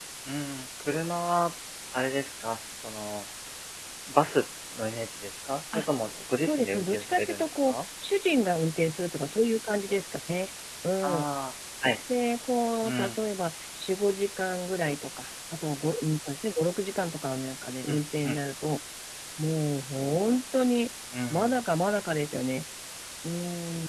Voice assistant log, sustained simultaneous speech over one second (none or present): present